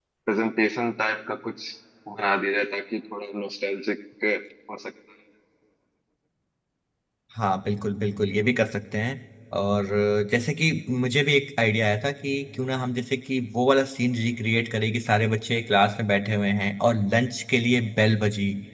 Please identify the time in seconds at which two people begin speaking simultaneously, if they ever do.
none

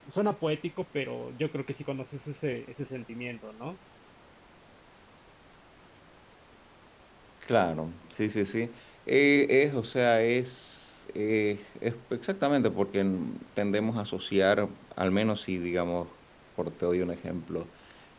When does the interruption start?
none

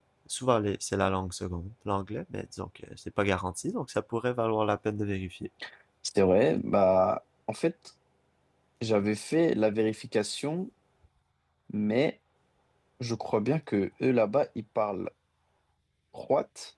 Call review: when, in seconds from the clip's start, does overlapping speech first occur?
none

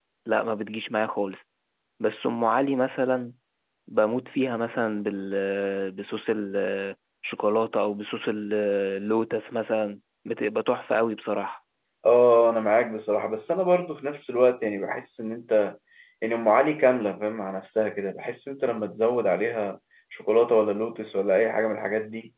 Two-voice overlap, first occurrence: none

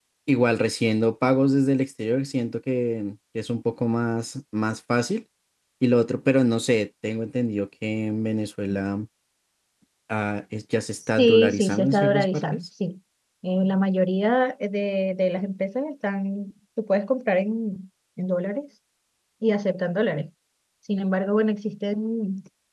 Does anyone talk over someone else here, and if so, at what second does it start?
11 s

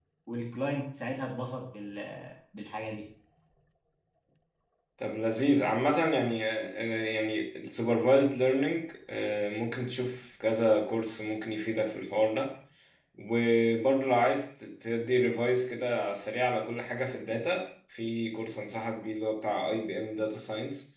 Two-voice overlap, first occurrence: none

